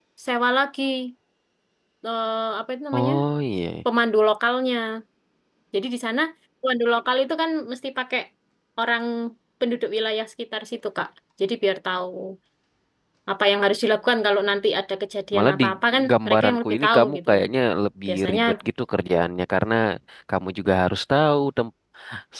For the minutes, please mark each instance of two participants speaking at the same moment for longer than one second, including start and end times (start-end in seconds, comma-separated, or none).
16.1-17.4